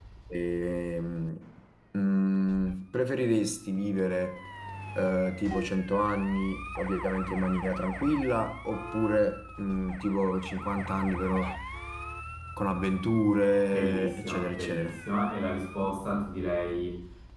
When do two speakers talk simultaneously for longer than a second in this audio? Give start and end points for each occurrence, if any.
13.7-14.9

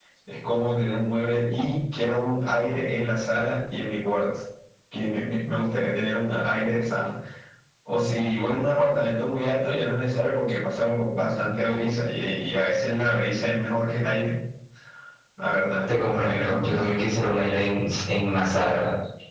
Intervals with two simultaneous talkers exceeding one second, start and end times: 15.9-17.2

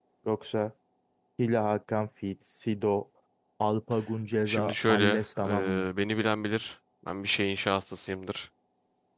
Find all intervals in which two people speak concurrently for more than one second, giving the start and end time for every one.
4.5-5.9

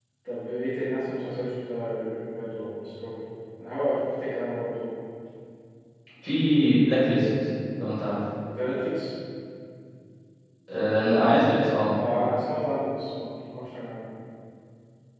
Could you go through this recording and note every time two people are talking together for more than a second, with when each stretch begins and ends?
none

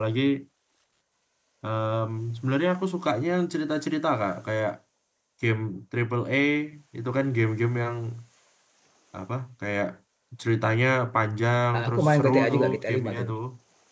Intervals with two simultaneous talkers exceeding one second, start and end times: 11.7-13.3

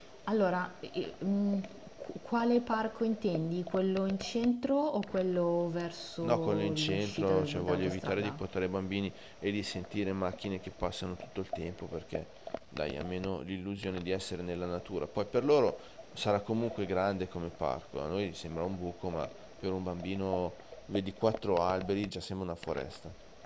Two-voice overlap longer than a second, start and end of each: 6.2-8.4

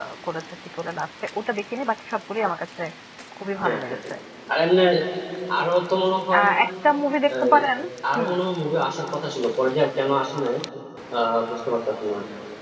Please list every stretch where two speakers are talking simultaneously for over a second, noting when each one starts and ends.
none

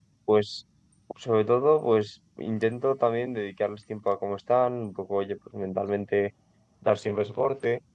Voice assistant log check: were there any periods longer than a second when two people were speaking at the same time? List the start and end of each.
none

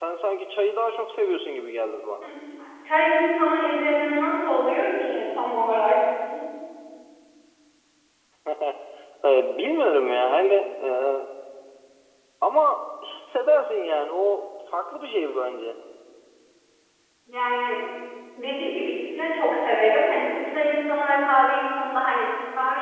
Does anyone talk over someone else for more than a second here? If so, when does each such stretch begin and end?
none

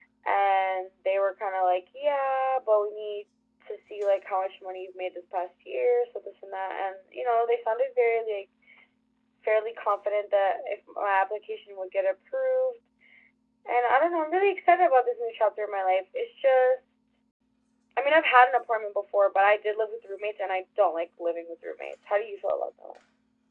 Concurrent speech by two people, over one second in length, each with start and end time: none

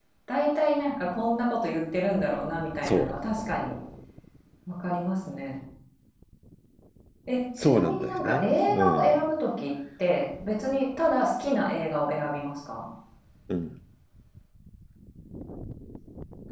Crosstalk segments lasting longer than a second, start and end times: 7.6-9.2

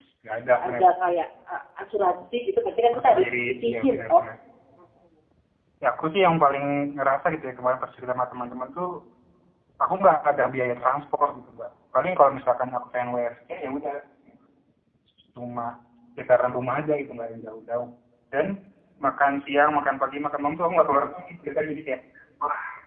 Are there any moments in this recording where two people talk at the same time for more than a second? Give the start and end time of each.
2.9-4.2

